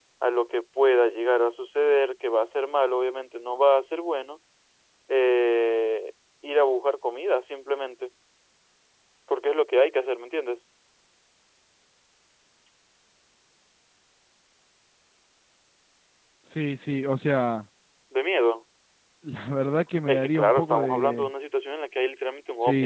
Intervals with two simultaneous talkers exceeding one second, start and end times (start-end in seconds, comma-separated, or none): 20.1-21.3